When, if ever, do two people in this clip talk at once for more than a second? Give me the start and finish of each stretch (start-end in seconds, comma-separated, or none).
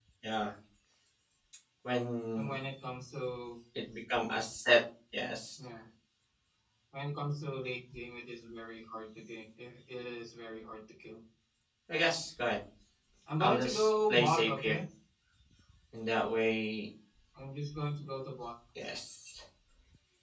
13.4-14.8